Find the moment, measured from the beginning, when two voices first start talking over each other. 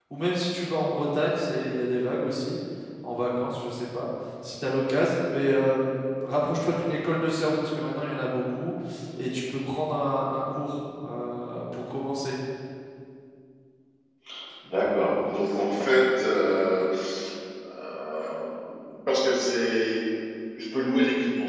none

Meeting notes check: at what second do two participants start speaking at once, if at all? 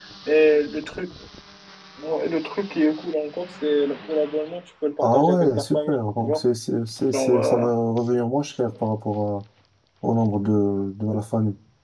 5.0 s

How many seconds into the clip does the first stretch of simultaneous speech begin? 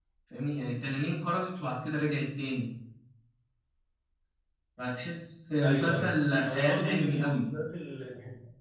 5.6 s

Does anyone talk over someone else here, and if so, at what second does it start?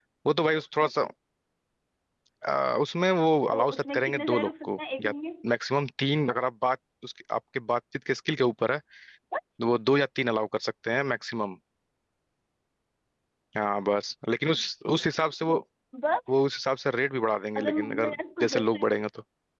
3.5 s

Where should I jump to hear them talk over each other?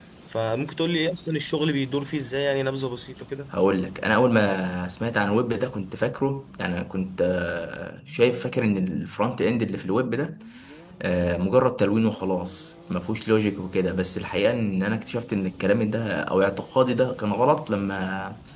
none

